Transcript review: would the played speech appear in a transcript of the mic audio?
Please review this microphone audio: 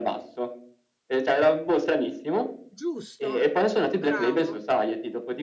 Yes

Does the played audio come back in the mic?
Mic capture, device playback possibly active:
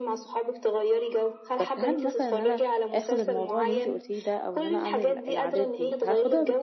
Yes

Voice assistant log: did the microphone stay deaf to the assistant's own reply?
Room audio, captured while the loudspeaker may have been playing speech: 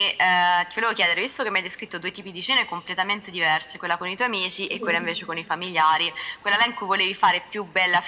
No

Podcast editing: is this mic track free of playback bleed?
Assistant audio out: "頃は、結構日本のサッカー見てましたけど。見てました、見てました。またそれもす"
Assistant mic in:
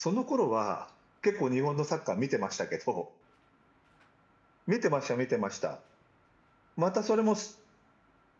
No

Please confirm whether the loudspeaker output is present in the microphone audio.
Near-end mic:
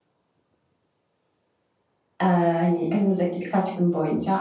No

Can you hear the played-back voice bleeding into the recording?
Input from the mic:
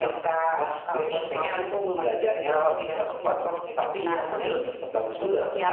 Yes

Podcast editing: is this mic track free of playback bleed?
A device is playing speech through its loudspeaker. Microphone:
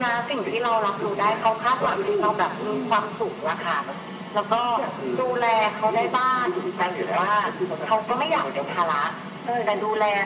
No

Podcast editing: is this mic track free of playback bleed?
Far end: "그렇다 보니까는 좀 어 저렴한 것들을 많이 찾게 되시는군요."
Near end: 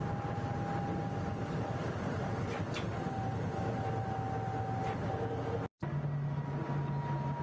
Yes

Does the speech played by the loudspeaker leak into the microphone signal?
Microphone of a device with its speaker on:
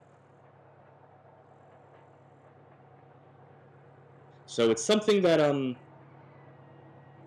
No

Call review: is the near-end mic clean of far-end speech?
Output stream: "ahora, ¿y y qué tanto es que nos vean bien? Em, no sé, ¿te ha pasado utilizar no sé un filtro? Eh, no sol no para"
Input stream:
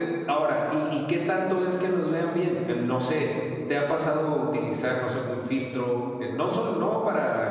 No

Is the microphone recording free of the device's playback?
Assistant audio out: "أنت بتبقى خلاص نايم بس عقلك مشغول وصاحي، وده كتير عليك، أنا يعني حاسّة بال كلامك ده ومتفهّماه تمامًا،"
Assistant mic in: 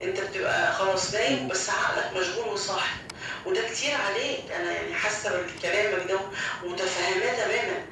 No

